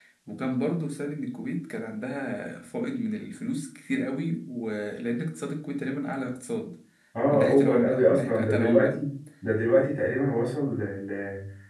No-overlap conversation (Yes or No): No